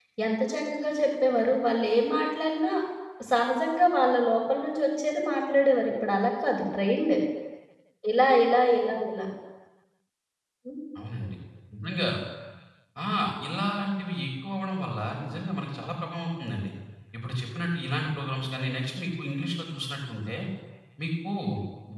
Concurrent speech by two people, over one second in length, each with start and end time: none

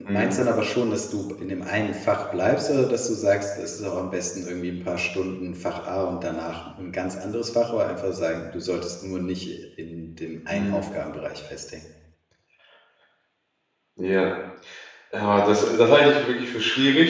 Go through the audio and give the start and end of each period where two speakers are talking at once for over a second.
none

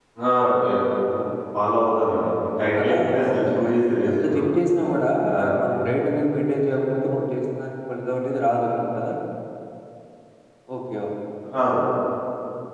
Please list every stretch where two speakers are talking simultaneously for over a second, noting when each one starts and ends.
2.8-4.5

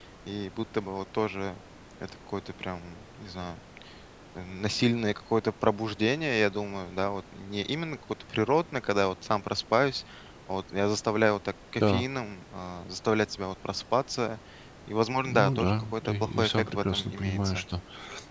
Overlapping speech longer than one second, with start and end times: 15.2-17.6

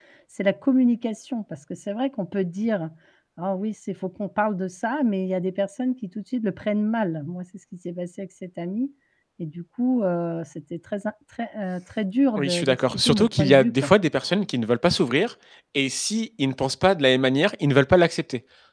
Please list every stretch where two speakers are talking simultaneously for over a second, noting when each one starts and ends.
12.4-13.9

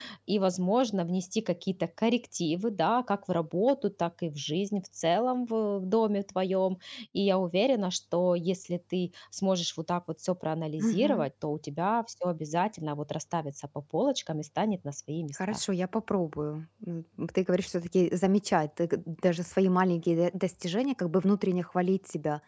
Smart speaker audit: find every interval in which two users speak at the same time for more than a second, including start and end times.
none

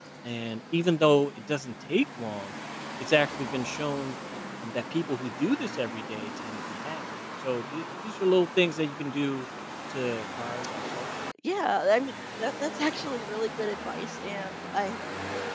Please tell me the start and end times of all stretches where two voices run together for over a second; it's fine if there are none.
none

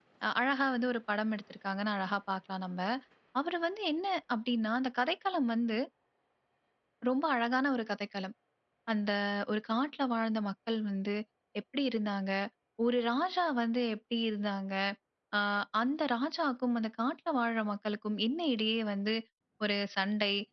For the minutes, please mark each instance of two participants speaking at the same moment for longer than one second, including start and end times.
none

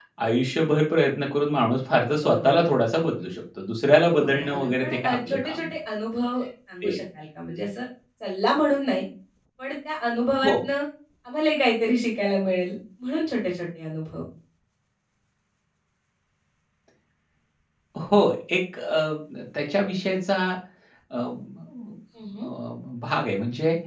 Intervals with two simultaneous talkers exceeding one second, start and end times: 4.2-5.7

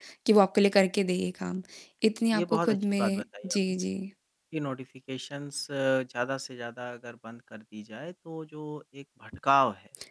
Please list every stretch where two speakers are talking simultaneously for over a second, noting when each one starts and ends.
2.3-3.6

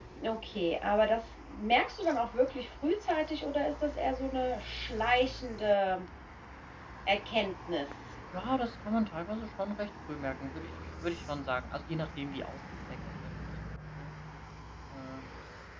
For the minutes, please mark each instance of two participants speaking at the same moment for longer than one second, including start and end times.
none

